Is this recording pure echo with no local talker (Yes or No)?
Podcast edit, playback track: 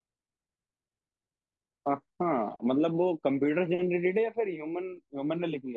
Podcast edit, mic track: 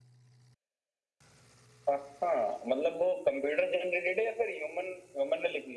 Yes